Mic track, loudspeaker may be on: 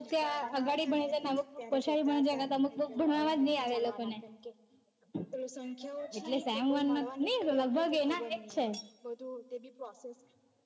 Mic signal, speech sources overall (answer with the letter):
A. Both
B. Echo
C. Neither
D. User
A